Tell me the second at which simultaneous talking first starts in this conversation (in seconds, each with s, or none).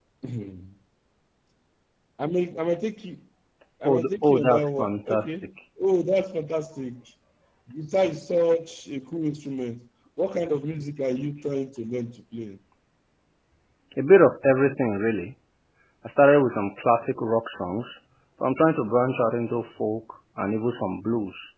3.8 s